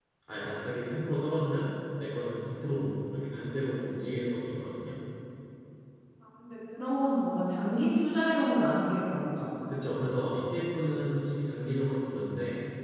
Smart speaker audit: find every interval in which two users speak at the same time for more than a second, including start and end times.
none

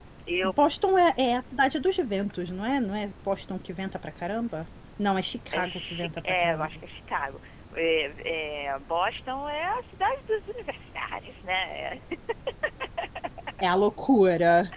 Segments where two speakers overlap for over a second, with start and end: 5.5-6.8

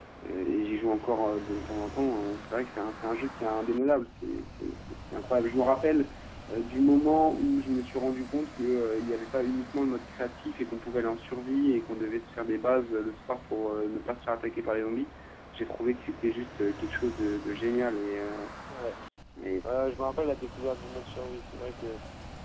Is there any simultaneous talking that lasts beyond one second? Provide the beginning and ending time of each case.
none

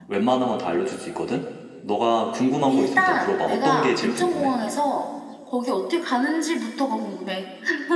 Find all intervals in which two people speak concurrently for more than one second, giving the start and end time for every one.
2.7-4.5

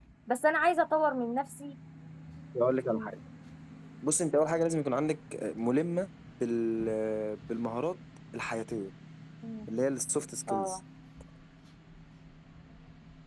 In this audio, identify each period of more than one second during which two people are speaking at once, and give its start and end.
none

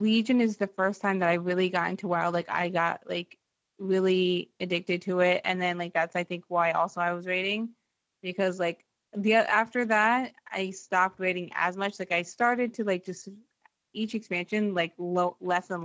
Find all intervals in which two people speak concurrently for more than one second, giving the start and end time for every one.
none

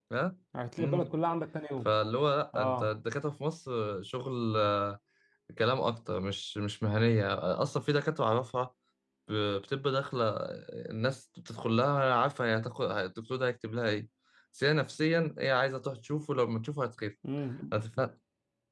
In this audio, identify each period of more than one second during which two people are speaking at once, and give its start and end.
none

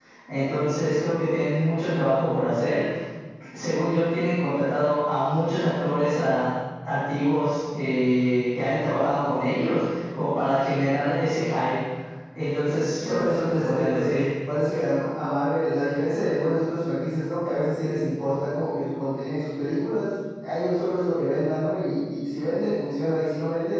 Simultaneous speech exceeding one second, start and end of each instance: 13.0-14.2

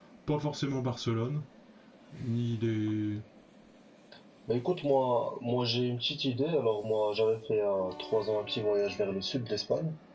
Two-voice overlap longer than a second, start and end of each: none

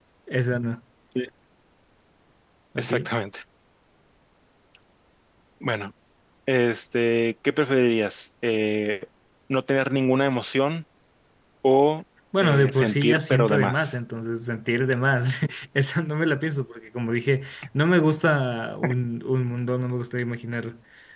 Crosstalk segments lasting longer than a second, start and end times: 12.4-13.9

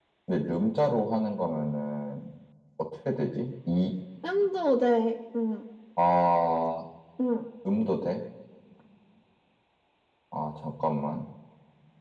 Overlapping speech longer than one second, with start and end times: none

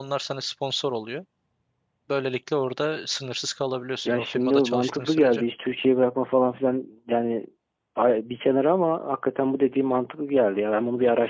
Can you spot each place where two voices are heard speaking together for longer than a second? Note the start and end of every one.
4.0-5.4

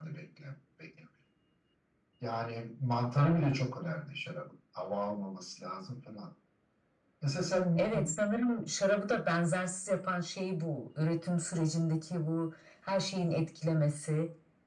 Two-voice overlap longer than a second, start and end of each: none

